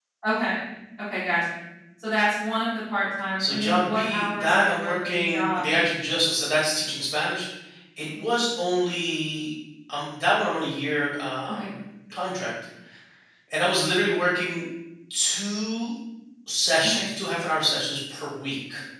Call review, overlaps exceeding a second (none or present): present